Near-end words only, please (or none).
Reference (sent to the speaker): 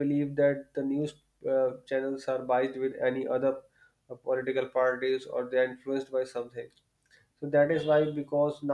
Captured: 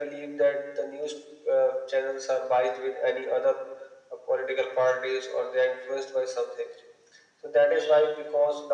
none